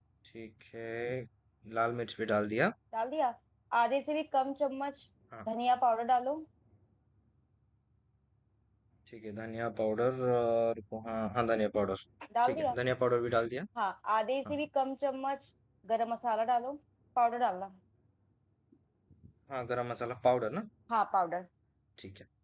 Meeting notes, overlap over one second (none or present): none